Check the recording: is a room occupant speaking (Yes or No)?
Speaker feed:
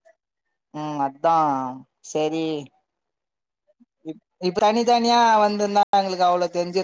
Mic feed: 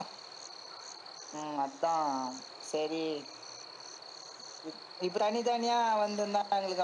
No